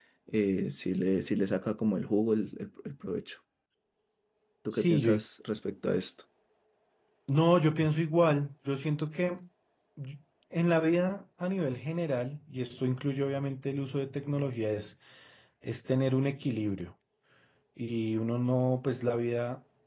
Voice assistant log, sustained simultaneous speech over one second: none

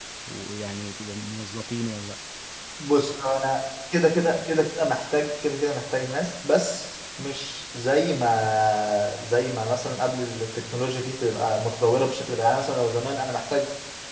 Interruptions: none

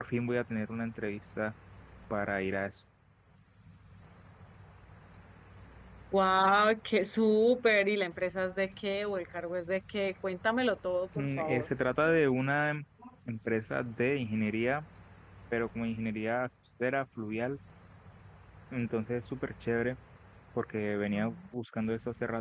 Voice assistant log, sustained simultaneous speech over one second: none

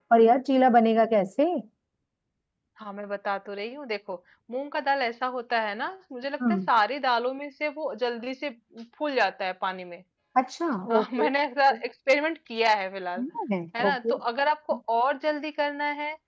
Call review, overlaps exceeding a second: none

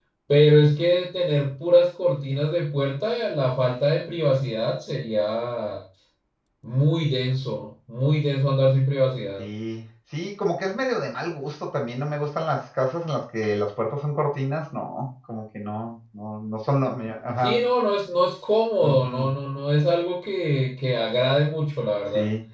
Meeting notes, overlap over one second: none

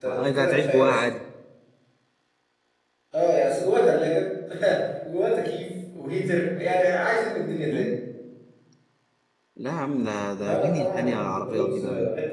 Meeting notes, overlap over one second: present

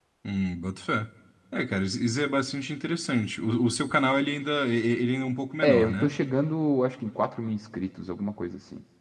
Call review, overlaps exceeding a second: none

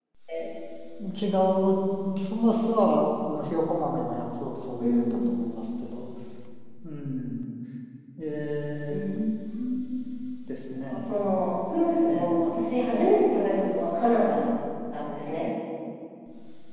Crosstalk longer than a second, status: none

